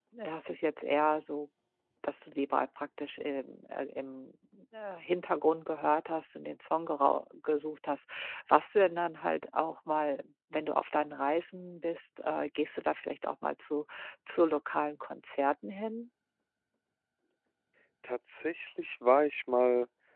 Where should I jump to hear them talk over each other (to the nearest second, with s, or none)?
none